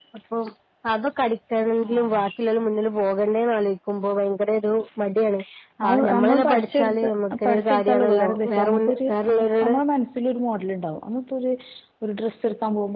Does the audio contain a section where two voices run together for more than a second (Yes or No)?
Yes